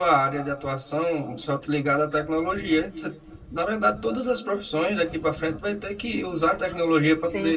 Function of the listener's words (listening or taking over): listening